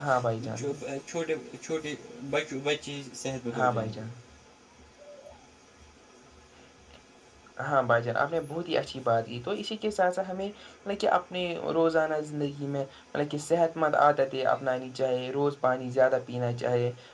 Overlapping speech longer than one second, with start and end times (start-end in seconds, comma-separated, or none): none